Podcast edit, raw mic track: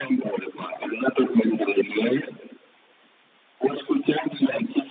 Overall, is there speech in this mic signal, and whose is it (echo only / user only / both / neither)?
echo only